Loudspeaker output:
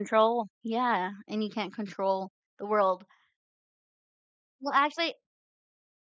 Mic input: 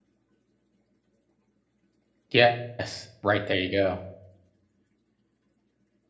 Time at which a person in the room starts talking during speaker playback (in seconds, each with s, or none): 2.3 s